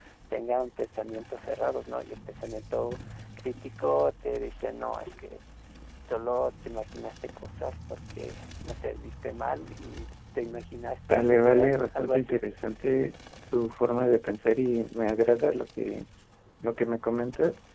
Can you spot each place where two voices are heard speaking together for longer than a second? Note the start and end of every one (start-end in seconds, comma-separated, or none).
11.1-12.4